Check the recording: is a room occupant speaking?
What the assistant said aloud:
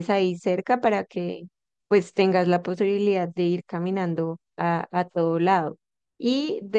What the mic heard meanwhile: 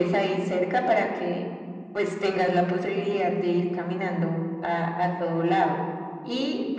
No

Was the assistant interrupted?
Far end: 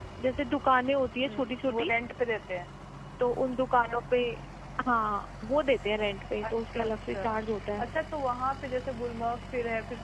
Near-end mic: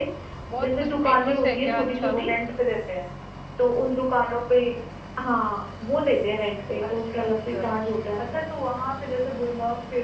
Yes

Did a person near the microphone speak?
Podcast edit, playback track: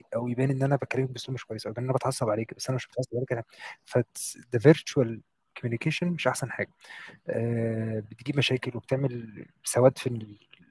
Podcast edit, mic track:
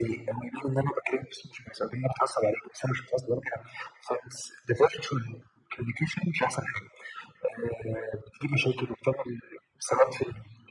No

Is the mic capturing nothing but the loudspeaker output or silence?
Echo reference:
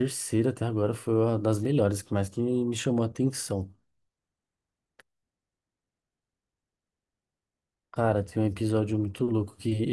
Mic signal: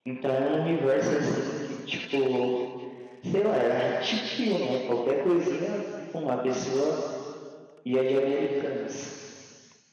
No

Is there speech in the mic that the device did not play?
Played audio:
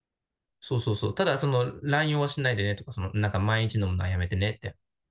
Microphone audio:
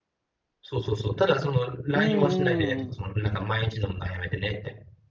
Yes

